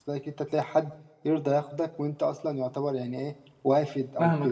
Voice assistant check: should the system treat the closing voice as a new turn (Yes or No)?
Yes